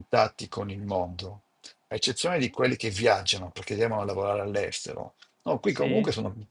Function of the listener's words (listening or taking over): listening